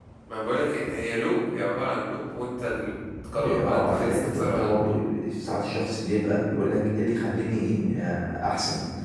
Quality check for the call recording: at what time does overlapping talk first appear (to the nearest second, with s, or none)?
3 s